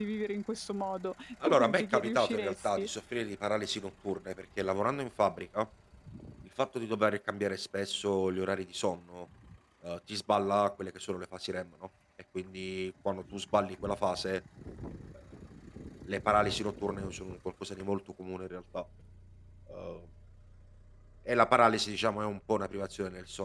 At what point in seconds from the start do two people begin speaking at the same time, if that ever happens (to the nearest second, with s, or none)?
1 s